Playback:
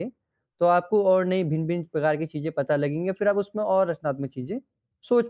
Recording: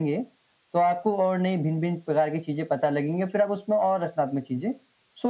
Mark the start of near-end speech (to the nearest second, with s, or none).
none